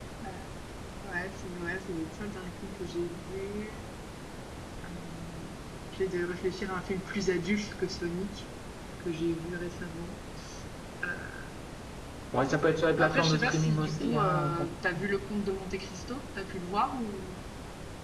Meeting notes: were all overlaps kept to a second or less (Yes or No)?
No